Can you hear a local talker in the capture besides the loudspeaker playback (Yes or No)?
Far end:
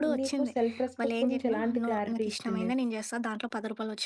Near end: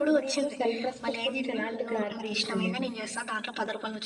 No